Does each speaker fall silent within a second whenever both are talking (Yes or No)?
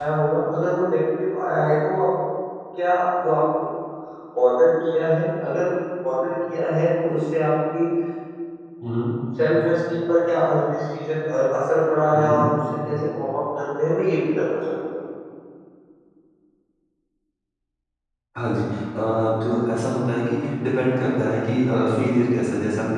Yes